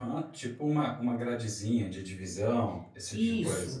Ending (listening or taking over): taking over